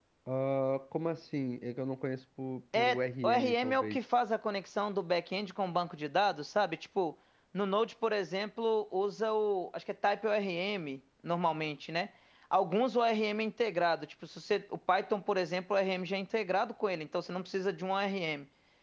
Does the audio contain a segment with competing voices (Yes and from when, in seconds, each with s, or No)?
Yes, from 2.7 s